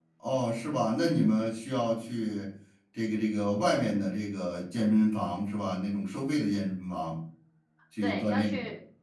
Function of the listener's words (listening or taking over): taking over